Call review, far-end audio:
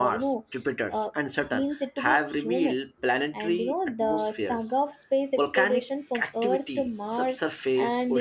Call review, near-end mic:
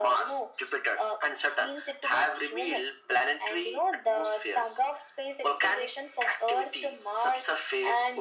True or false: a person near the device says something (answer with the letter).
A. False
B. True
A